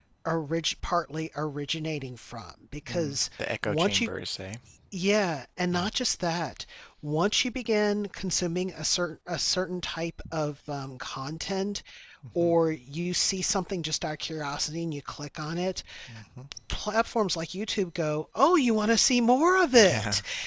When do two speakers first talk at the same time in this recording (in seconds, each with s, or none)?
2.9 s